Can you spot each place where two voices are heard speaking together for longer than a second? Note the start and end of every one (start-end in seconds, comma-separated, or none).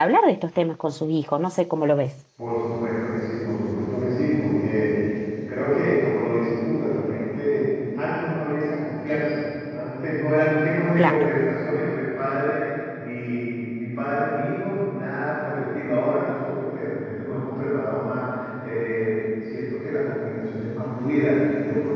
none